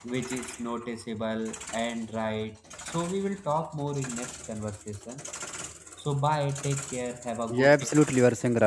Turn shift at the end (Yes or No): Yes